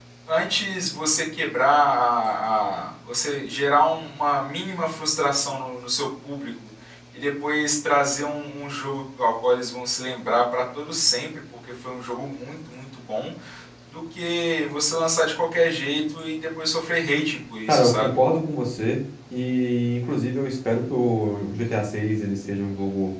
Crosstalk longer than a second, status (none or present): none